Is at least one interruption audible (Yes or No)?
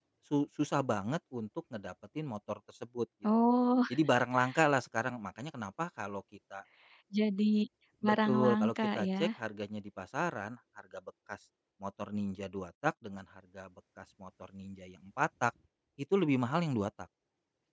Yes